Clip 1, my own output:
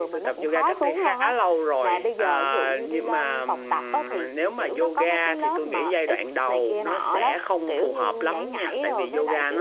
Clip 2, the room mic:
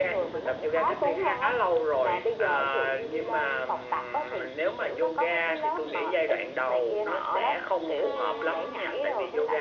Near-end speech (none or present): none